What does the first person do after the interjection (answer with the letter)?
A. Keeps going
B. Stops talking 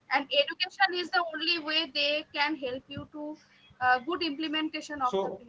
B